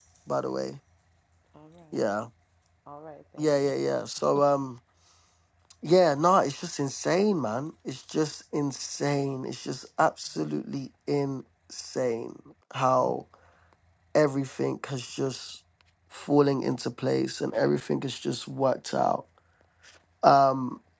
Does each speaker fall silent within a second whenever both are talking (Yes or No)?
Yes